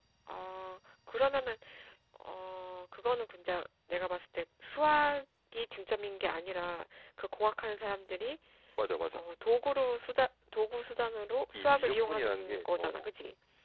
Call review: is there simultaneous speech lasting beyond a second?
Yes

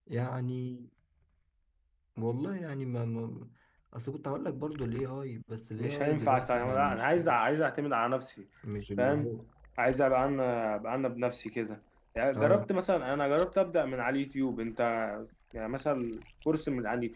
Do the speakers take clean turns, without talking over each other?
No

